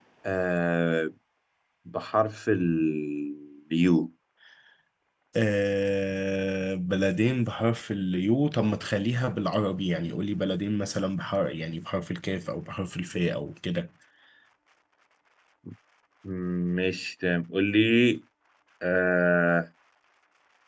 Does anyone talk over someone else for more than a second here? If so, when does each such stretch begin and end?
none

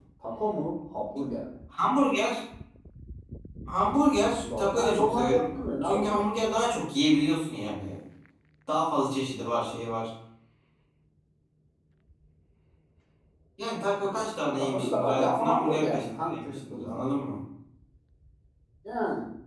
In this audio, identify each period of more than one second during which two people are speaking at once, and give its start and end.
4.4-6.3, 14.0-17.1

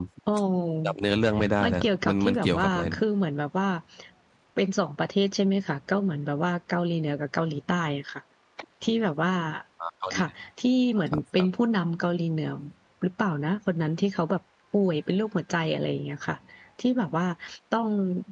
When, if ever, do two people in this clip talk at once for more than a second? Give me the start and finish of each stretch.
1.6-3.0

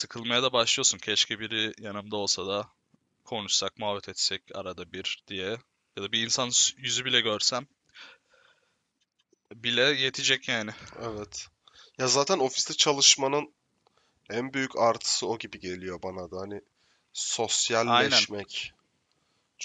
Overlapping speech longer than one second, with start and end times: none

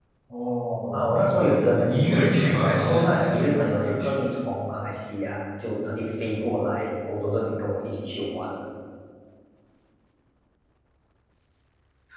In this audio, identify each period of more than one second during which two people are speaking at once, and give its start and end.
0.9-4.2

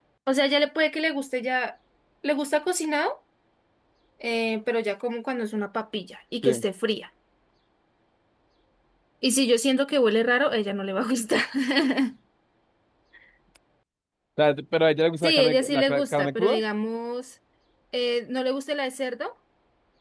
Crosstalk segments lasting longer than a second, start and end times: 15.2-16.6

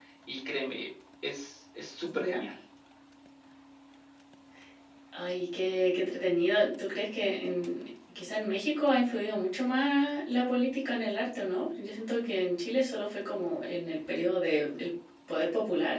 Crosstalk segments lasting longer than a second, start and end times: none

